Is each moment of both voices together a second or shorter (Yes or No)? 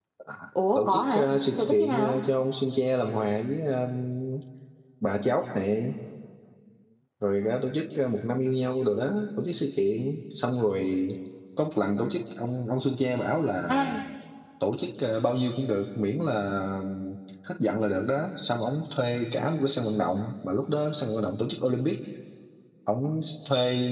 No